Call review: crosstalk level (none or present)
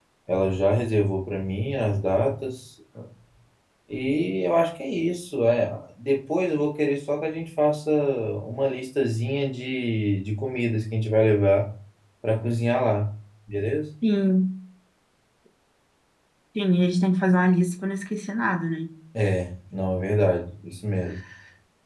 none